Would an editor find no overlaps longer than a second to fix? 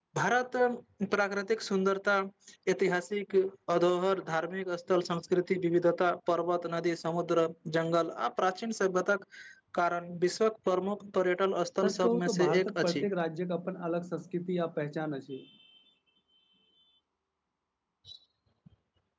No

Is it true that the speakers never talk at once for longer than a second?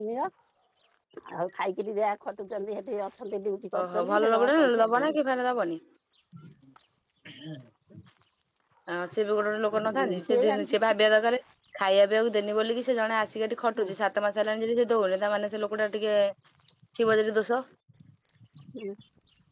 No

